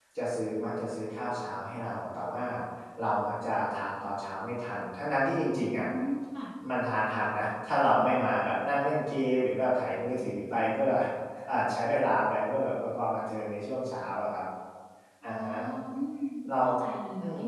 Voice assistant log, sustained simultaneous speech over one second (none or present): none